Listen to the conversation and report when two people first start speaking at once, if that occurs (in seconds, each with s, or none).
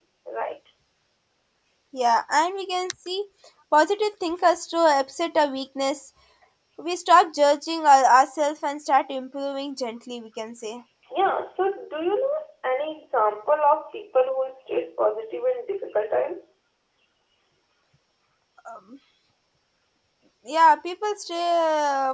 none